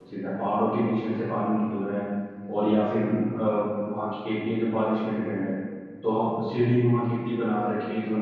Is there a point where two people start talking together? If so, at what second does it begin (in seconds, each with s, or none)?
none